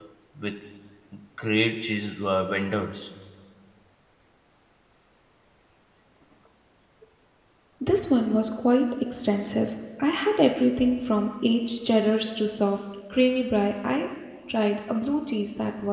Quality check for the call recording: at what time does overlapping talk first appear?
none

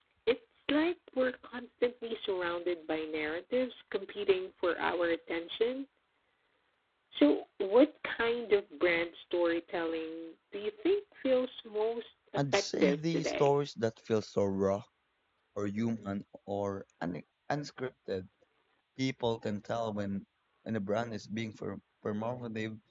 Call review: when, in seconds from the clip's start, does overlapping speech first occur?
12 s

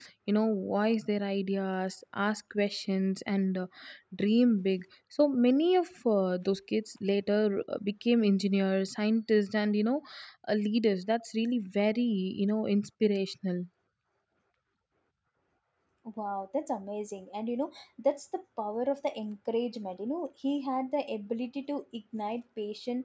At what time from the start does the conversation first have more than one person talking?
none

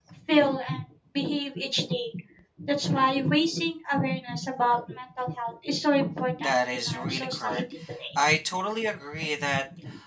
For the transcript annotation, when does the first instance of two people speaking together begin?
6 s

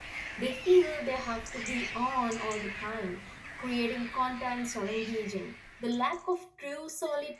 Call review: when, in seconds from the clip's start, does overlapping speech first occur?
none

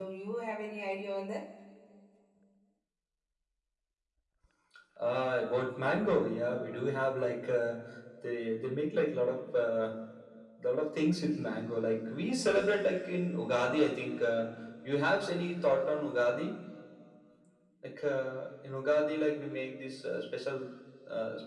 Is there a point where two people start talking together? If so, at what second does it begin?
none

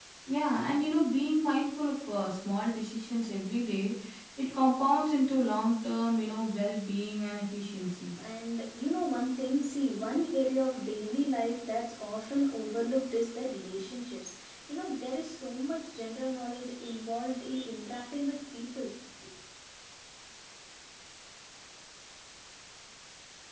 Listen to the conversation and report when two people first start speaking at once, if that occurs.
none

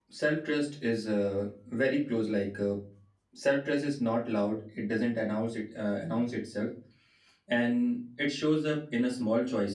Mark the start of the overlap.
none

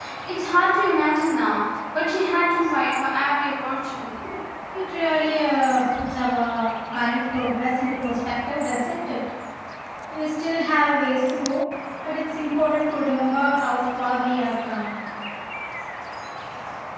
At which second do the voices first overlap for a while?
none

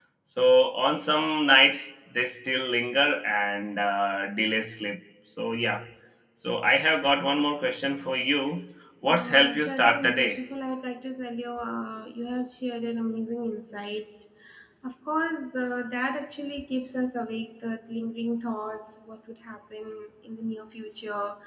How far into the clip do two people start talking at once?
9 s

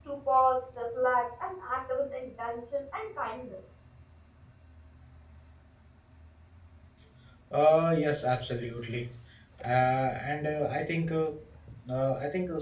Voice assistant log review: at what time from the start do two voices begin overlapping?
none

